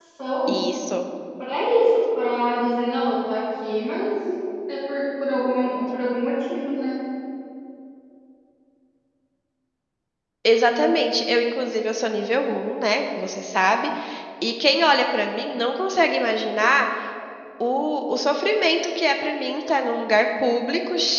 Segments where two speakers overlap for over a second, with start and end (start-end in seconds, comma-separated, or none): none